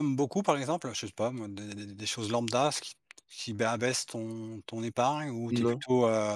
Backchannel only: Yes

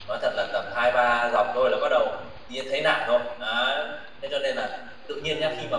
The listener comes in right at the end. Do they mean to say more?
No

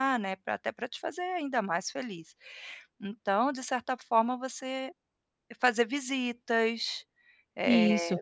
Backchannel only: Yes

